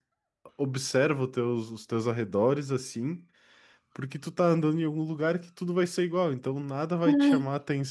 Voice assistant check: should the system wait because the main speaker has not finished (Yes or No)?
Yes